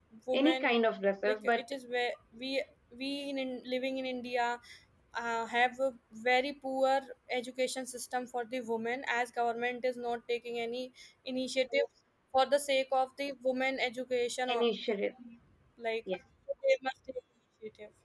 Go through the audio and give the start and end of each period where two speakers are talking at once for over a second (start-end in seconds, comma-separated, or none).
none